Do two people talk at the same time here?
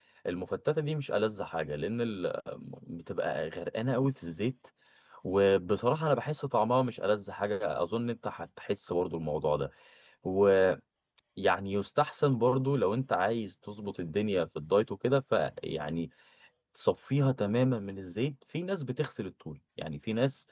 No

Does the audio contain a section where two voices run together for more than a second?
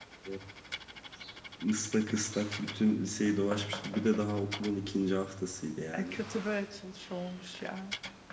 No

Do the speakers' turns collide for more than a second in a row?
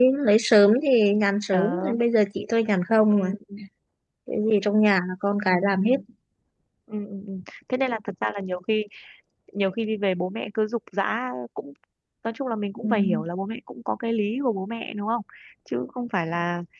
No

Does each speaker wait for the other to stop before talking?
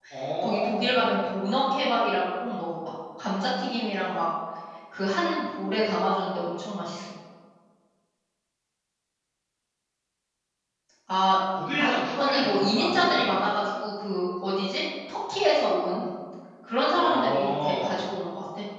No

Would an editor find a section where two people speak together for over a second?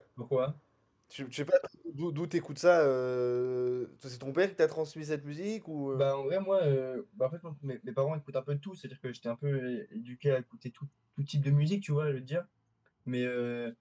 No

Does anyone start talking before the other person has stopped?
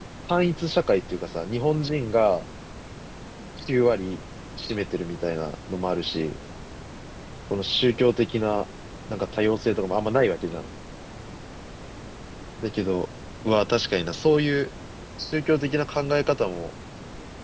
No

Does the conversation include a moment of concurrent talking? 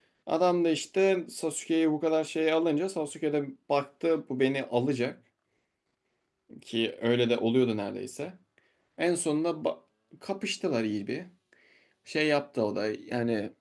No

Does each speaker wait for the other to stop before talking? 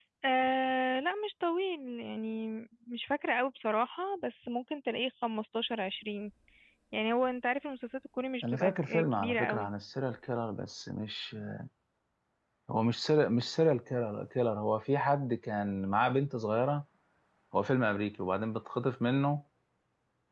No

